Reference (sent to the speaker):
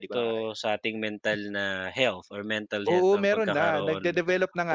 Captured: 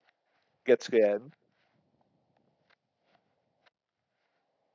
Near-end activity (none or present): present